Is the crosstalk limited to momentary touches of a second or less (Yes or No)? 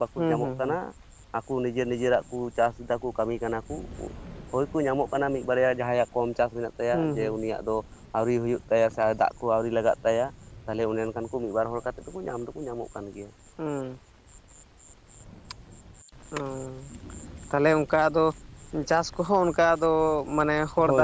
Yes